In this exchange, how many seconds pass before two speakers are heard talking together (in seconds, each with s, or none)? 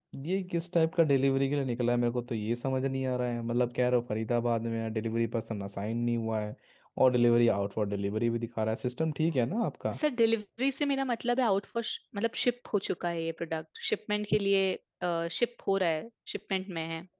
none